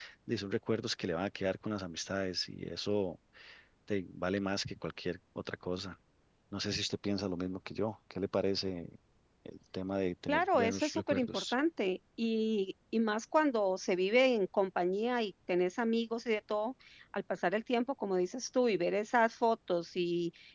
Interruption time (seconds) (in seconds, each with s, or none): 10.3 s